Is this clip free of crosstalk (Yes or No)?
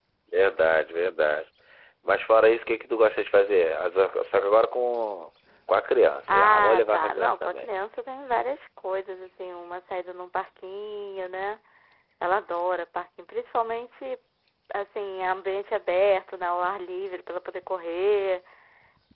No